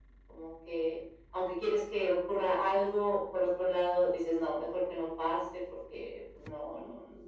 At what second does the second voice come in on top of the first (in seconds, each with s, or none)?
none